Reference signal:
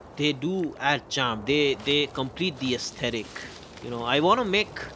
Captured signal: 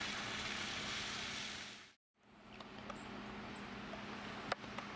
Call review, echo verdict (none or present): none